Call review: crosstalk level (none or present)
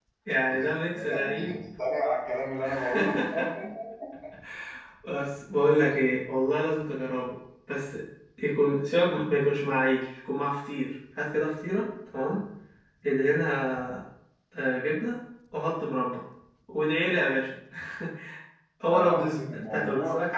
present